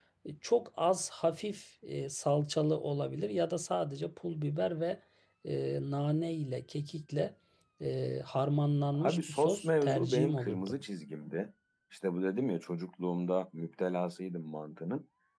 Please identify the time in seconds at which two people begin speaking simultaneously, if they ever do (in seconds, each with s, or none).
8.9 s